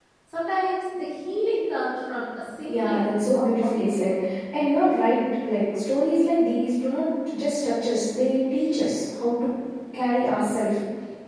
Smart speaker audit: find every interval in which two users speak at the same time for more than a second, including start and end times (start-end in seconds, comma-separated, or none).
2.6-4.2